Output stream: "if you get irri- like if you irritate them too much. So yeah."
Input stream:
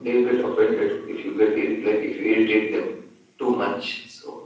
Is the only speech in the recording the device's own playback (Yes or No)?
Yes